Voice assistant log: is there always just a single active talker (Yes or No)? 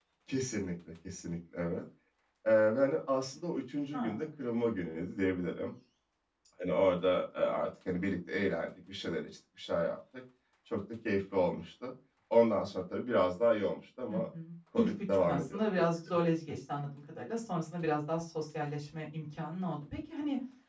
No